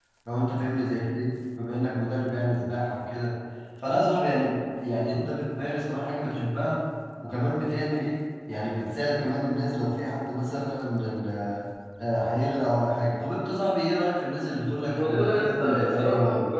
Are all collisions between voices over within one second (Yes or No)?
No